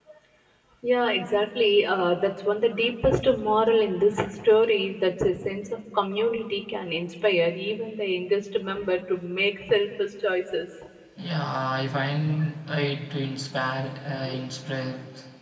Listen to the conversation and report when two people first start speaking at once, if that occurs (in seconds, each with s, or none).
none